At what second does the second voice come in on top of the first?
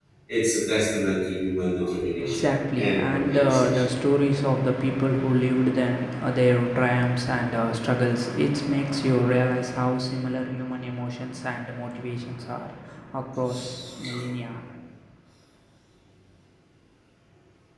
2.2 s

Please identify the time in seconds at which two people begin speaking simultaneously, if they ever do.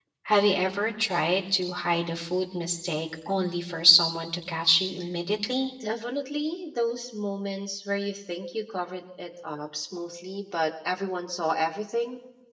none

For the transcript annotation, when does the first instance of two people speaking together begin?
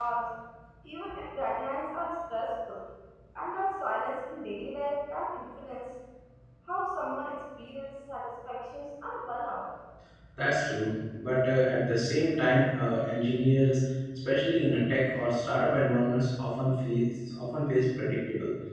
none

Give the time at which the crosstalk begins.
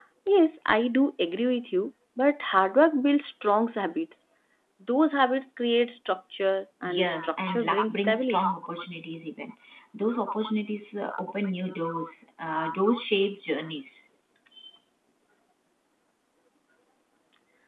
6.8 s

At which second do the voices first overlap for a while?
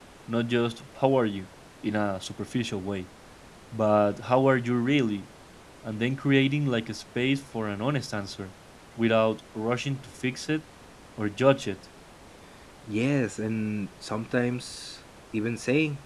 none

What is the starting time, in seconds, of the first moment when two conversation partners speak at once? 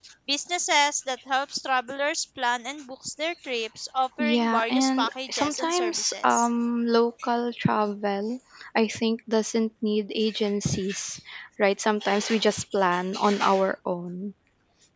4.2 s

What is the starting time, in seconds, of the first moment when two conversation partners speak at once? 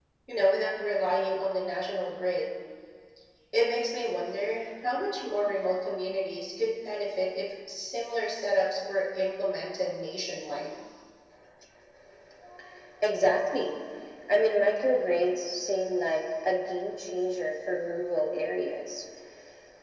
none

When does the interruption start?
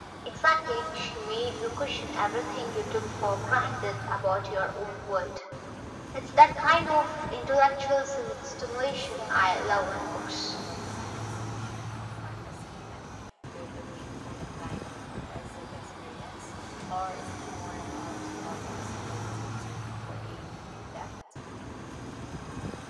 9.0 s

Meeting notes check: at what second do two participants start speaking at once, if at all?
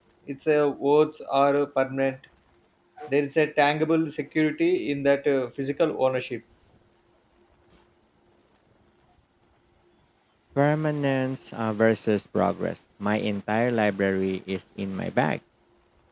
none

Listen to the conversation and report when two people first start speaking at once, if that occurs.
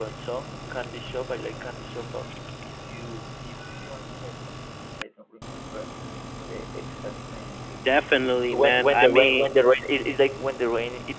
8.2 s

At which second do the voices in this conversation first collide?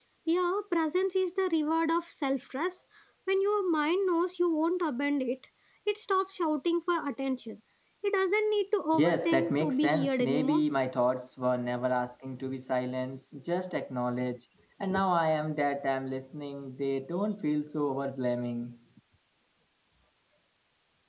8.9 s

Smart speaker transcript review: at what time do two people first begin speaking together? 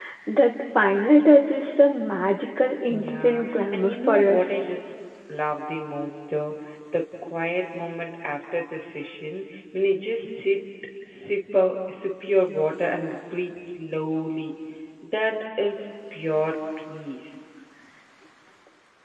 2.9 s

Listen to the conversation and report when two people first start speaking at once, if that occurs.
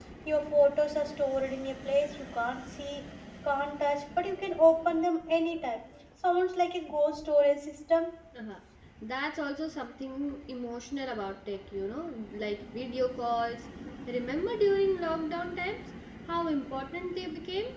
none

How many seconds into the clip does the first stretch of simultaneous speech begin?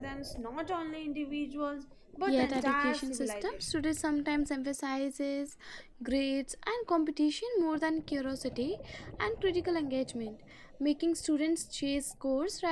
2.1 s

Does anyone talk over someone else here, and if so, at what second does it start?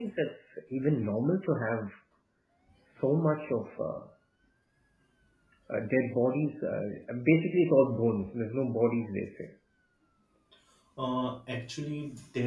none

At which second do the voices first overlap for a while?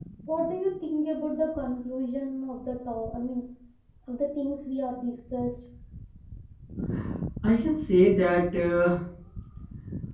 none

